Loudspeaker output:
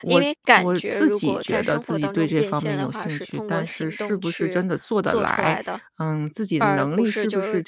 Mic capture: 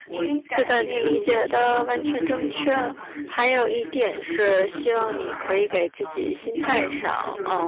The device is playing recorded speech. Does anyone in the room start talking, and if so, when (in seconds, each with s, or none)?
0.6 s